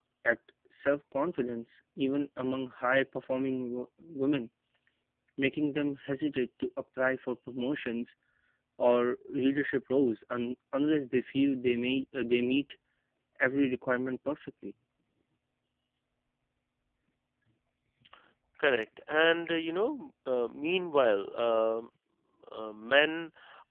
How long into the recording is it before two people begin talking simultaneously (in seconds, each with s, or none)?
none